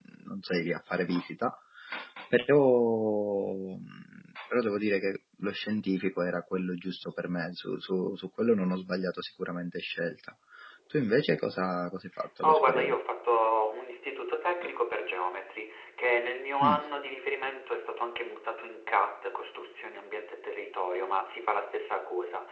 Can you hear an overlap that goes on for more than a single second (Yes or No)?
No